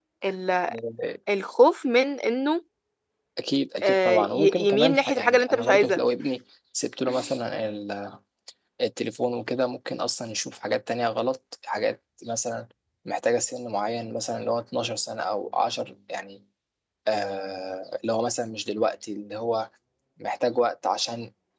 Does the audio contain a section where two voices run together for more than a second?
Yes, from 3.8 s

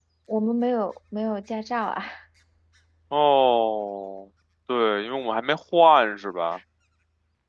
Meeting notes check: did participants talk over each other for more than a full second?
No

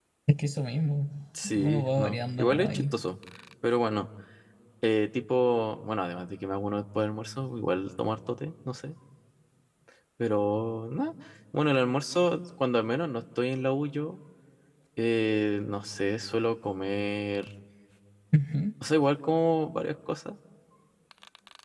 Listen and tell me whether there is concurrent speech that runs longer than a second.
Yes, from 1.6 s

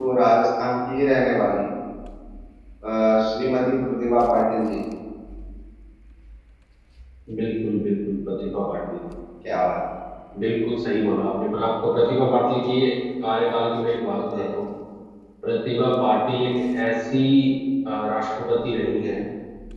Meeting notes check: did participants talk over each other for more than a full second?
No

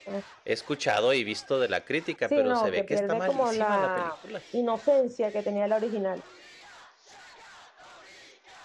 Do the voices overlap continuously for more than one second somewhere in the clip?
Yes, from 2.3 s

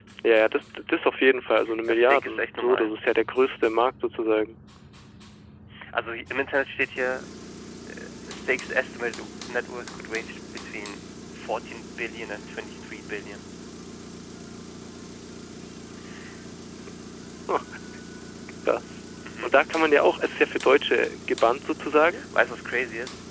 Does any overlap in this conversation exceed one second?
Yes, from 1.6 s

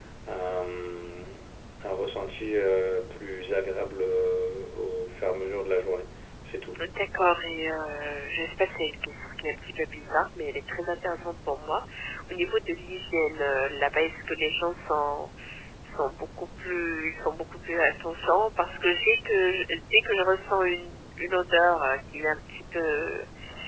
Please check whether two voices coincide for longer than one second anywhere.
No

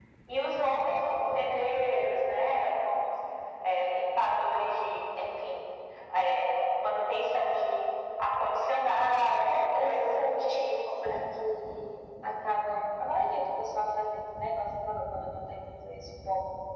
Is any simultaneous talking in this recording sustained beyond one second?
Yes, from 9.4 s

